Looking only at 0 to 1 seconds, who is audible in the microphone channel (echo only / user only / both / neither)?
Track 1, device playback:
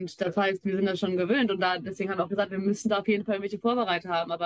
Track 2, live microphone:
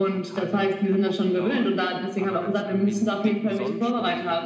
both